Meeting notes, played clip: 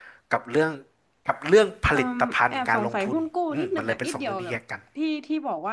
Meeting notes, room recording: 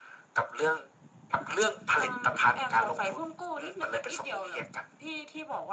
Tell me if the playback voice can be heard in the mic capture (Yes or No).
Yes